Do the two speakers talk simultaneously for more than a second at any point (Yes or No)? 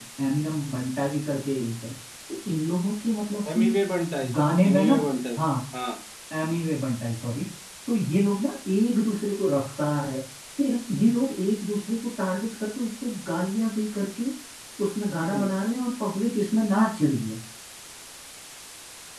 No